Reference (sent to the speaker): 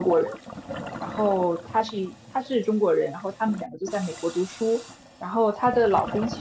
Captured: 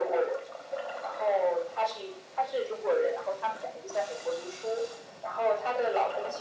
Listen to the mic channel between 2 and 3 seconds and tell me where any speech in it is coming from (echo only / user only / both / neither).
echo only